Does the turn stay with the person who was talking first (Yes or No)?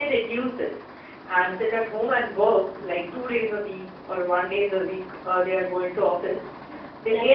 Yes